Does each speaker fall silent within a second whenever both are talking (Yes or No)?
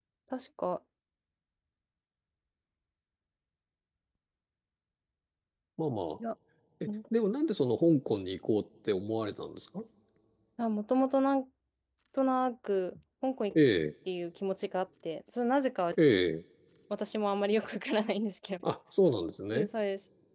Yes